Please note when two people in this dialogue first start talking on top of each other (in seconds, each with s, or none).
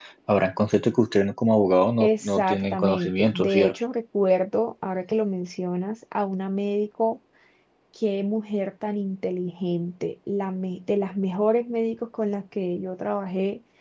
2.0 s